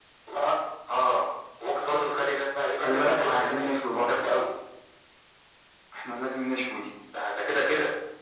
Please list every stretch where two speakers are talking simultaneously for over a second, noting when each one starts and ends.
2.8-4.2

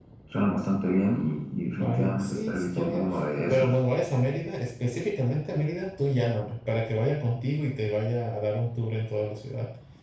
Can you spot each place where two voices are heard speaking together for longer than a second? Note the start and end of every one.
1.8-3.0

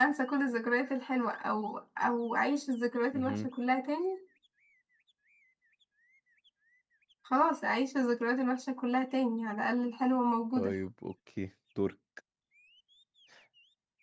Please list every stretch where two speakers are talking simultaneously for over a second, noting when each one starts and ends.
none

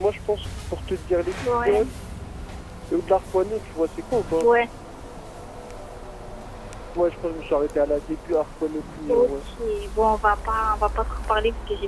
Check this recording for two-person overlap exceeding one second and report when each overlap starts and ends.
none

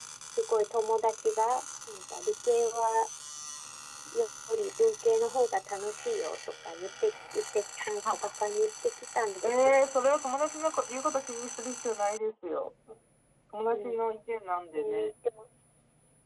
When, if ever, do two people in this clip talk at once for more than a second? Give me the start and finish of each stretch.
none

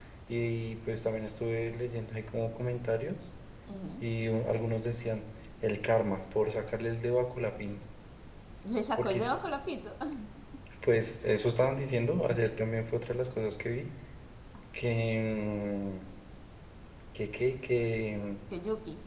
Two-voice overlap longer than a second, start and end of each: none

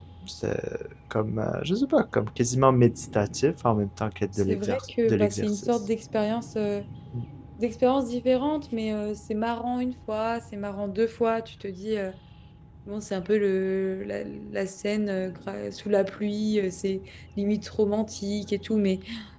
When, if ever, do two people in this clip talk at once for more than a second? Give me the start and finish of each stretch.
4.5-5.7

